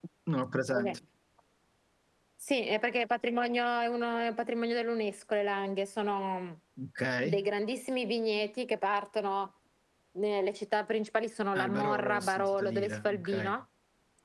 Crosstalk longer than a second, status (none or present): present